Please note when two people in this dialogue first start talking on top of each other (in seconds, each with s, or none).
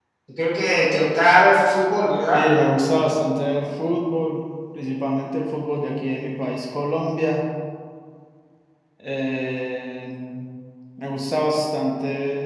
none